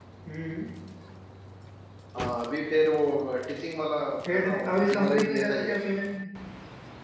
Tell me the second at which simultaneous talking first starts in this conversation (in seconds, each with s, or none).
4.2 s